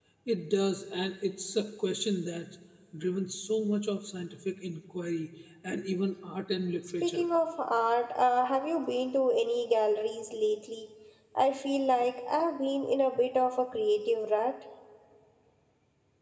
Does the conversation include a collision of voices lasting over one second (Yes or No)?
No